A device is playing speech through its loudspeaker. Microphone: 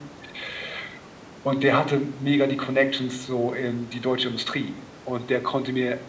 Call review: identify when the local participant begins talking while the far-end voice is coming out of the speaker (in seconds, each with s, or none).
none